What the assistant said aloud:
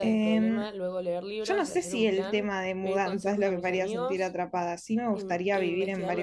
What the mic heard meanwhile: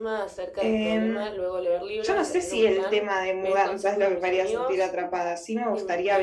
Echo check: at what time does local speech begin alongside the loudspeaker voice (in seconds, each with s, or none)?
none